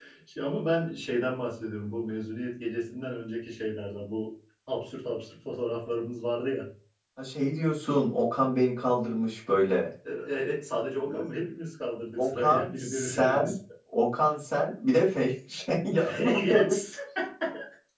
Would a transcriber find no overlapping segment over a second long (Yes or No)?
No